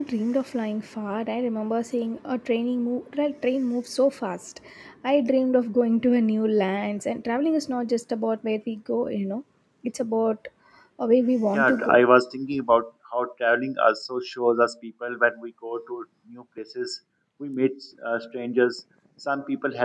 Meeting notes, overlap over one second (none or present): none